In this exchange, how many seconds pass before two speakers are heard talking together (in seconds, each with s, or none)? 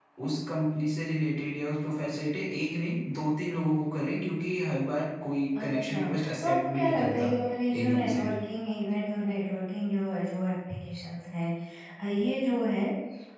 5.6 s